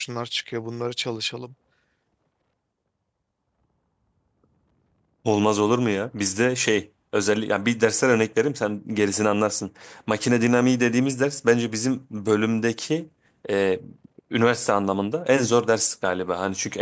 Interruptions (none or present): none